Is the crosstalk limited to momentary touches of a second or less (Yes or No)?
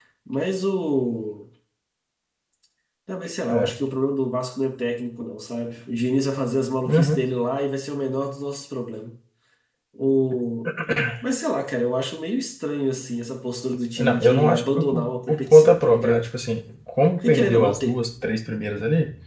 No